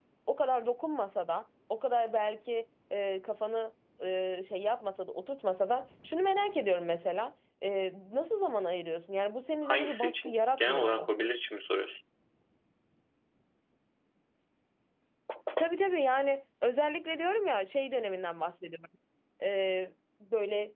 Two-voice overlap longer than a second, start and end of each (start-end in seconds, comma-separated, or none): 9.7-11.1